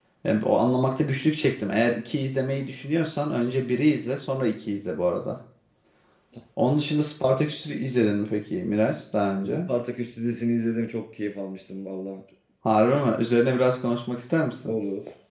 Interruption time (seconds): none

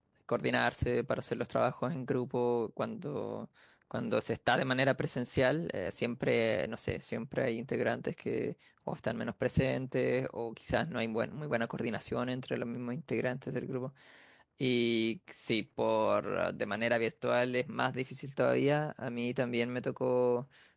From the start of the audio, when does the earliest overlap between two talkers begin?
none

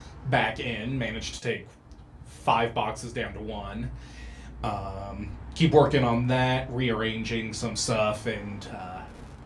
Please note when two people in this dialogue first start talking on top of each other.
none

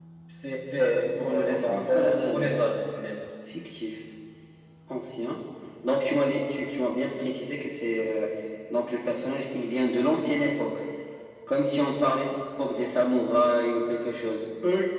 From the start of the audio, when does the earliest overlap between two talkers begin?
1.2 s

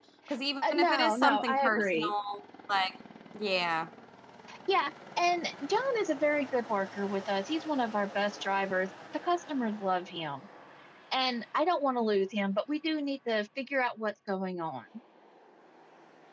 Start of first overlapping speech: 0.7 s

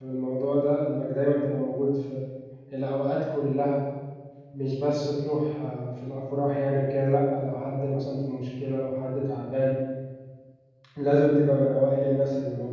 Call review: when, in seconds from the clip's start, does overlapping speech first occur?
none

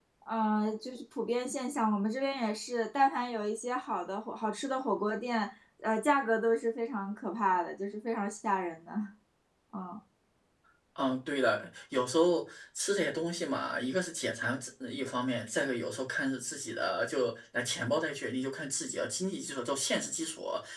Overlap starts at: none

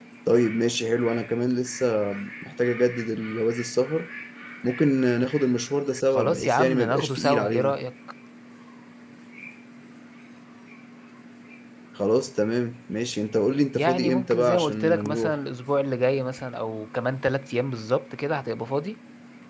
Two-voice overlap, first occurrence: 6.2 s

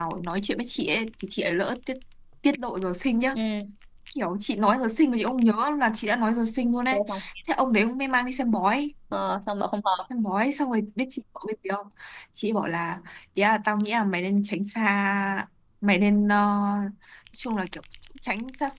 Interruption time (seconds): none

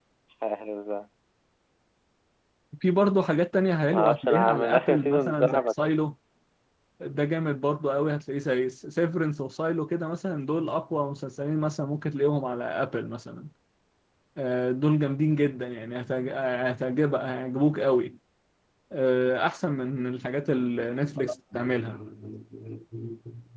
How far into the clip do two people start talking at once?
3.9 s

